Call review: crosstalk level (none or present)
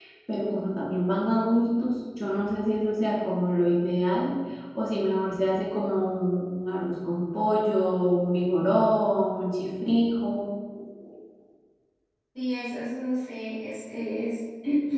none